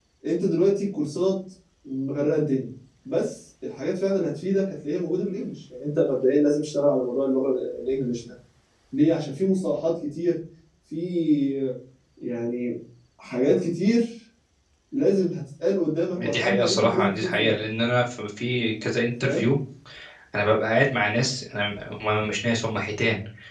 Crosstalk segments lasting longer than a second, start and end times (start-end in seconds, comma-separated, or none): 16.2-17.5